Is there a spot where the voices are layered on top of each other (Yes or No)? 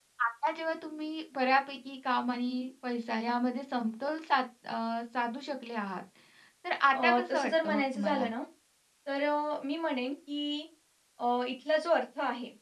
Yes